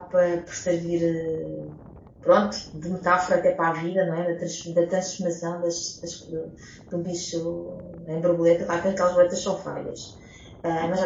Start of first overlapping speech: none

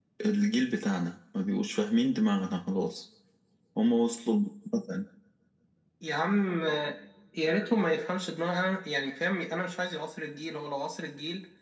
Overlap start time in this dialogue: none

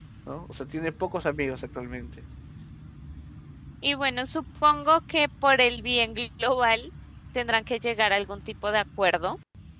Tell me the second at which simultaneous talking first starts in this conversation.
none

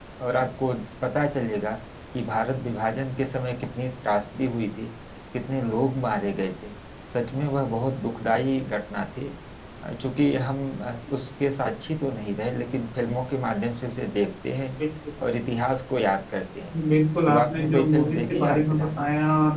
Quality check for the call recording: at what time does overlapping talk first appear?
17.3 s

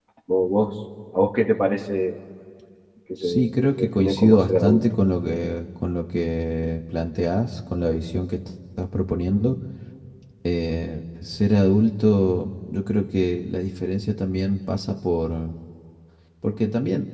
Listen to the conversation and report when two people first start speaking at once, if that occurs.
3.2 s

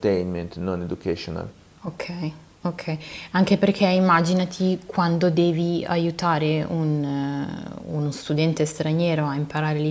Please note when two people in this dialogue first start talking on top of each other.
none

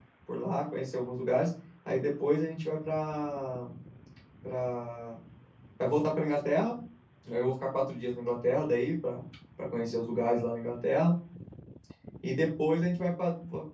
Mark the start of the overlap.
none

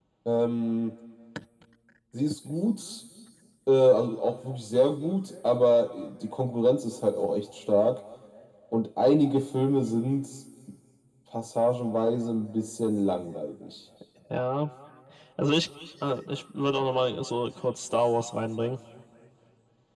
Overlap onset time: none

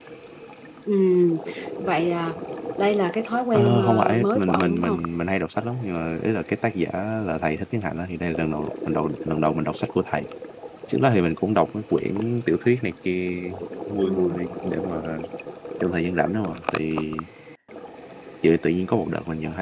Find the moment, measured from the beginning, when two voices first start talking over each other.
3.5 s

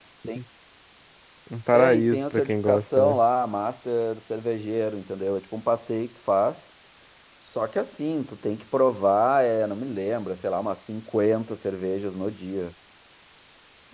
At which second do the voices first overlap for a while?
1.7 s

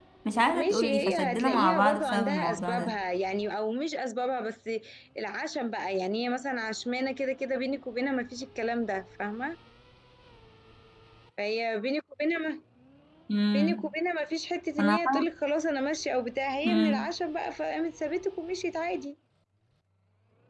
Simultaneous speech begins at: 0.5 s

